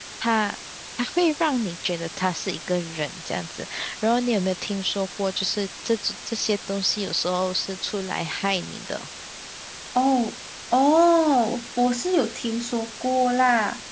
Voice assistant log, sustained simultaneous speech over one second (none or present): none